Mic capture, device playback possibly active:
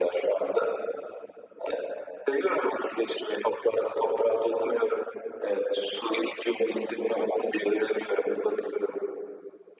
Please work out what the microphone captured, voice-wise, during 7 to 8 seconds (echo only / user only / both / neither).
echo only